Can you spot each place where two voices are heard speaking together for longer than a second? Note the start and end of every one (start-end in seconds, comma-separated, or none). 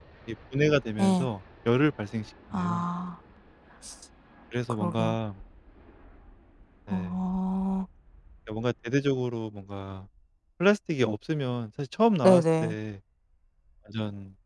none